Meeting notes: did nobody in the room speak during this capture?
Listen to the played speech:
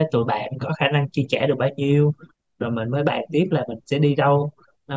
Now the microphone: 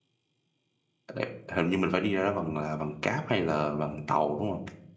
No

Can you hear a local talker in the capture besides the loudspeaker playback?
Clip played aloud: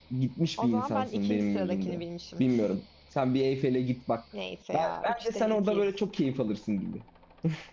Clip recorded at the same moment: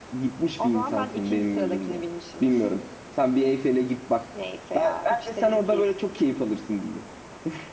No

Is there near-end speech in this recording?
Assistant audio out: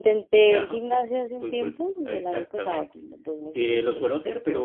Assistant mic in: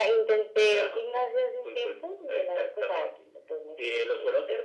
No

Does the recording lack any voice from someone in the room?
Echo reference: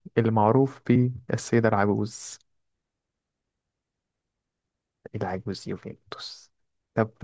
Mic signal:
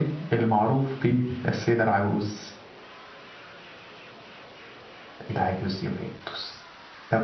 Yes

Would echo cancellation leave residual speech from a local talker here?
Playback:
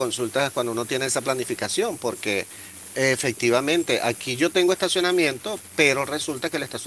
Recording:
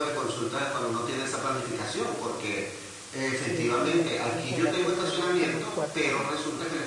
Yes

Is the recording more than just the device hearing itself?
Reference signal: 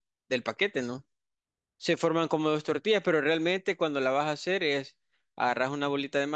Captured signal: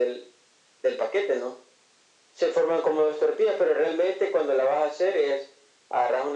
No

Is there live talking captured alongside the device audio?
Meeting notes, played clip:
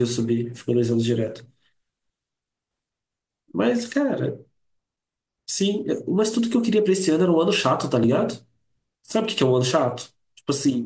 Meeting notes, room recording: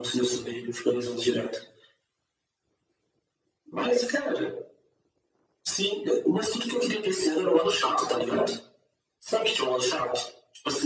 No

